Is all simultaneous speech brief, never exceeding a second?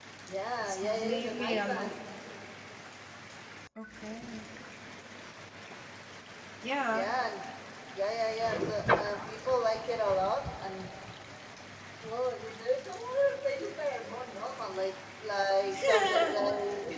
No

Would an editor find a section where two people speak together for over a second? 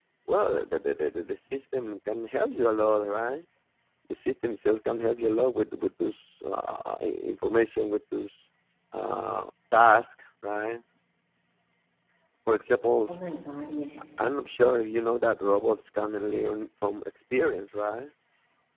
No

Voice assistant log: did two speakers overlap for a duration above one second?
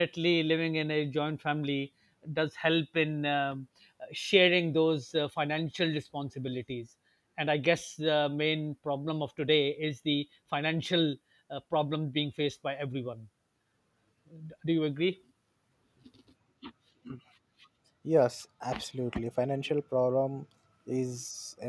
No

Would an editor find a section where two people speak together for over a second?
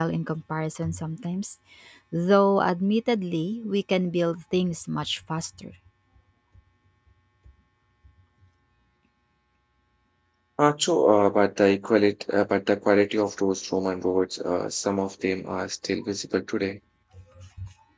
No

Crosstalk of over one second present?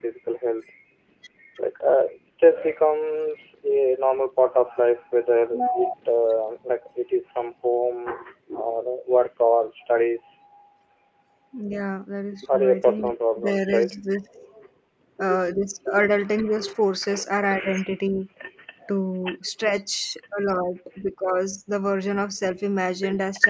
Yes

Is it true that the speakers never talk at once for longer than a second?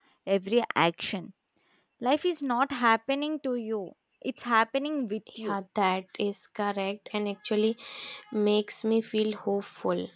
Yes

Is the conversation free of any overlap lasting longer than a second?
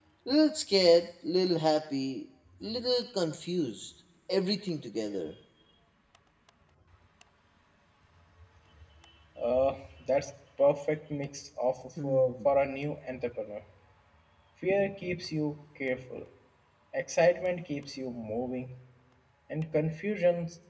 Yes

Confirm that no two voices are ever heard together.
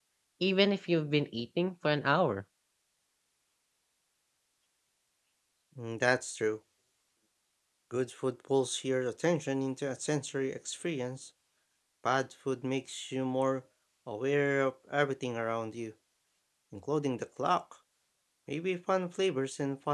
Yes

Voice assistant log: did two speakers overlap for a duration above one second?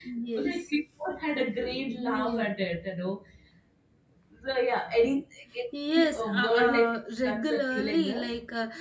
Yes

